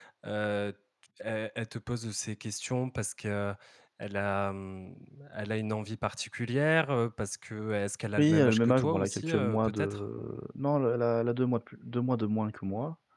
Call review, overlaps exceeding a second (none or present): present